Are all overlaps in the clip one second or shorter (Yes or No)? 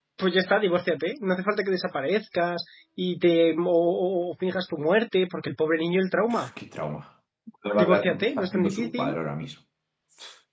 No